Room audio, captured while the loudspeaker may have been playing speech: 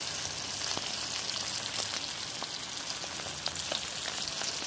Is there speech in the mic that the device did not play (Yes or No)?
No